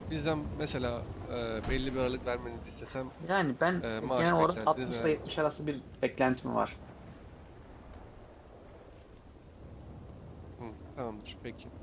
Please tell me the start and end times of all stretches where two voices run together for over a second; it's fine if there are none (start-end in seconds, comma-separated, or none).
3.8-5.4